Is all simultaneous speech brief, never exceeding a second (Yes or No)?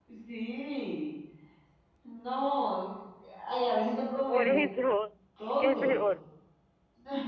Yes